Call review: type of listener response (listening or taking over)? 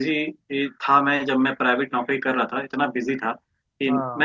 listening